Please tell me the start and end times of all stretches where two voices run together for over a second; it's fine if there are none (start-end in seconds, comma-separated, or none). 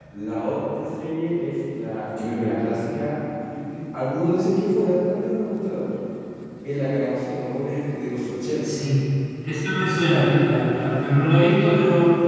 9.7-11.1